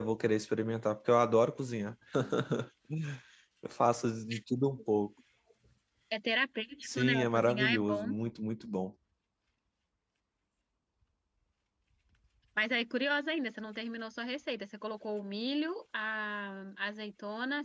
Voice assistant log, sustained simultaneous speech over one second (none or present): present